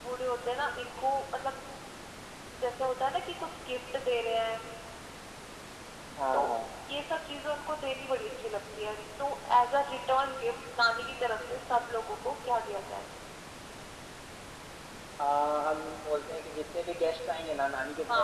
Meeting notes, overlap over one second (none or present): none